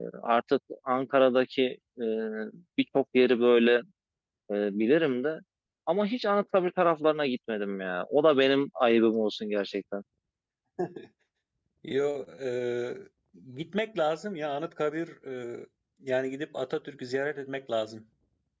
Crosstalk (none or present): none